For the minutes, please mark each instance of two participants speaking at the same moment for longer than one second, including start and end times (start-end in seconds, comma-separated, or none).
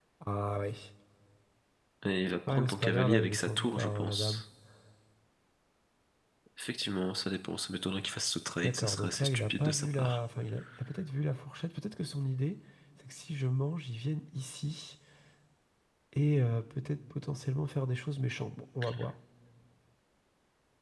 2.5-4.4, 8.6-10.2